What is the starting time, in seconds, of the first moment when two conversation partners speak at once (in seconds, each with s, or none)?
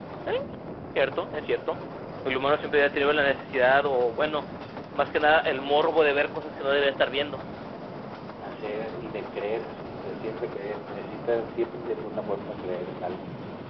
none